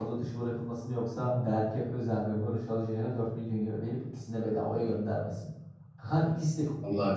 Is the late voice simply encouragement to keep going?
No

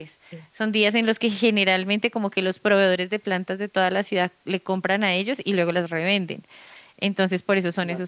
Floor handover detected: No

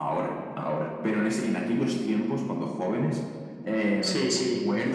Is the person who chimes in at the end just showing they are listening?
Yes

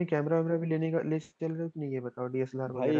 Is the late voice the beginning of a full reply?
Yes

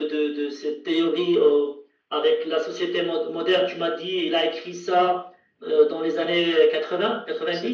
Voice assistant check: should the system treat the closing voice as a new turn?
Yes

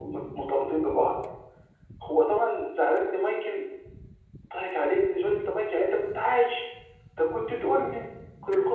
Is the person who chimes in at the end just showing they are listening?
Yes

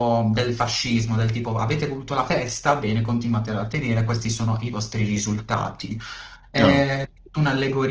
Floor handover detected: No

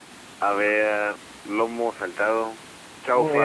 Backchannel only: No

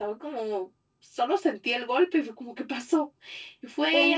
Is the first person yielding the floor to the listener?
No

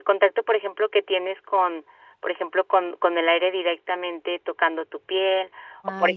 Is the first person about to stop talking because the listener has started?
No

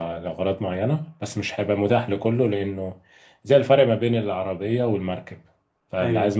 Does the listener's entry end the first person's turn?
No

